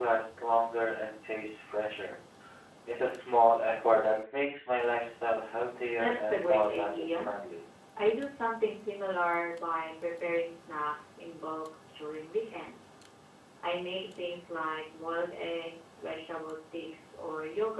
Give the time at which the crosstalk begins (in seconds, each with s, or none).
6.0 s